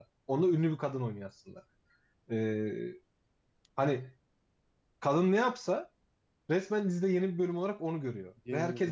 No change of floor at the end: Yes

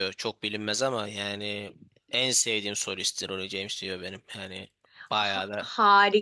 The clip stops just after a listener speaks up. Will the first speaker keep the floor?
No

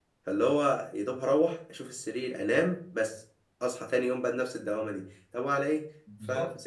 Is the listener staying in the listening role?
Yes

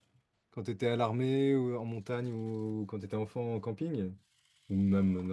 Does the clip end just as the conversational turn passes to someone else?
Yes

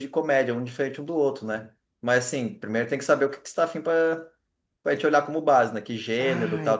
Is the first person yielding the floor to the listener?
Yes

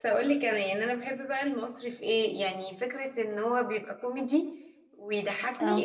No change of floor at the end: Yes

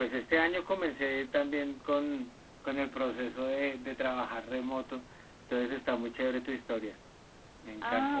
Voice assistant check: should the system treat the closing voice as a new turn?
Yes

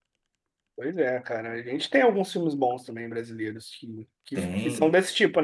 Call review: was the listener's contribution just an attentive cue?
Yes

